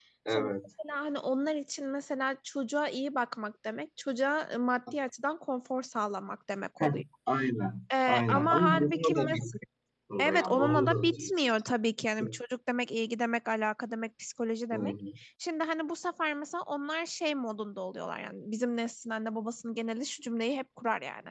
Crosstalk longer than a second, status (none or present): present